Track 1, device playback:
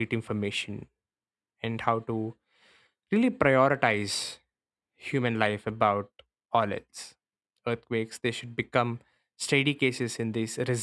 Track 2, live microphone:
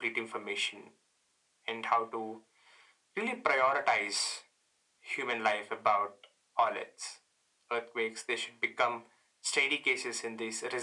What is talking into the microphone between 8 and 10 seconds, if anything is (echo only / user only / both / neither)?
echo only